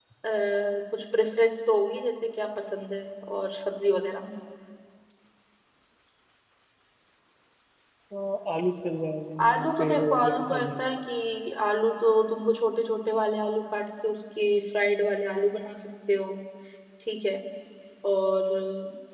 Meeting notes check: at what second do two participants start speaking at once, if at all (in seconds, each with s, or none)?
9.4 s